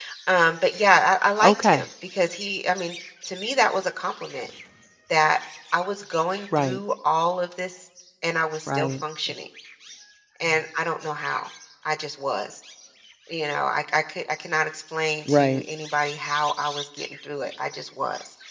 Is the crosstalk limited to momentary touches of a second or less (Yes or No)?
Yes